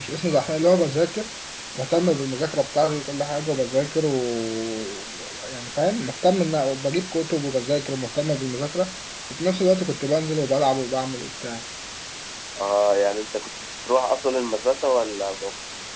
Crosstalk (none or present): none